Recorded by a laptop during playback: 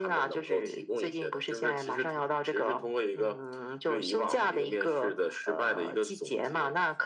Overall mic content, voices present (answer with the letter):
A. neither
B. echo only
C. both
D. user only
B